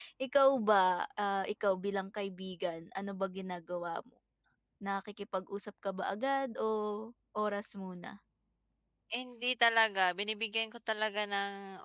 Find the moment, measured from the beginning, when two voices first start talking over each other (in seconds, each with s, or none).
none